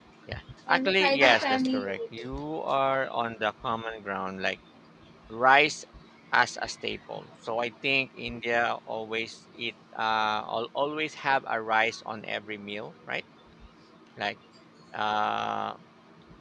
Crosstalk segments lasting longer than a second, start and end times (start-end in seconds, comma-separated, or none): 0.7-2.3